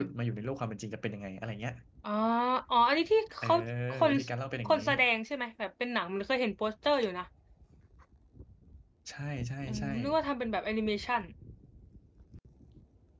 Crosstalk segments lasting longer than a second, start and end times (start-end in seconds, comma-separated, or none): none